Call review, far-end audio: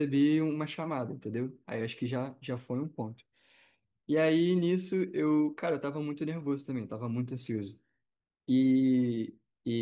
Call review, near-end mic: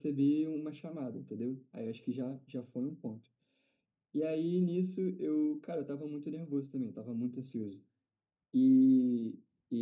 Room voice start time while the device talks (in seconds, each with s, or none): none